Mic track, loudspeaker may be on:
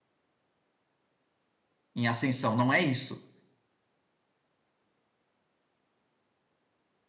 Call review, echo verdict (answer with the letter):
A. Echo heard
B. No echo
B